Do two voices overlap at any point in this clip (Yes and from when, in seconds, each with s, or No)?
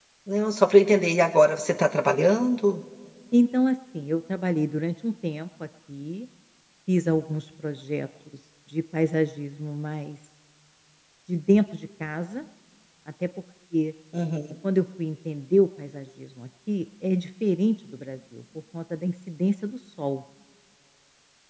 No